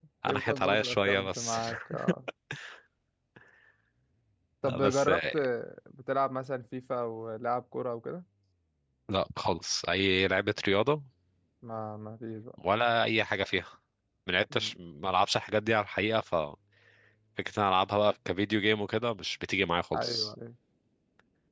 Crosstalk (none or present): present